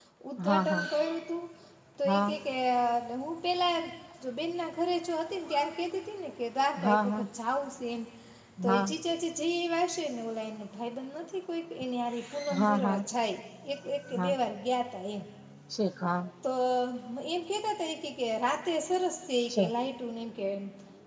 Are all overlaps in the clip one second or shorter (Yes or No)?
Yes